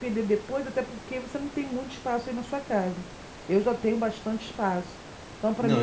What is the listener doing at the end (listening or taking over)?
taking over